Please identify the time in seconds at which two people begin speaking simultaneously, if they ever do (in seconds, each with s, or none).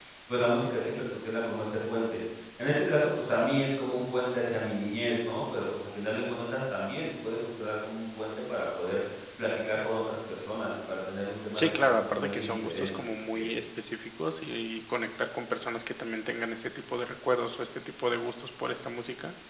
11.5 s